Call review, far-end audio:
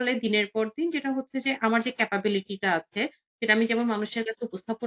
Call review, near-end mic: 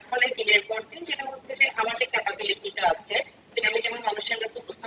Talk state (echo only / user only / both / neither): echo only